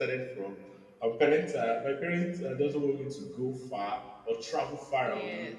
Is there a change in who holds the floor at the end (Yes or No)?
No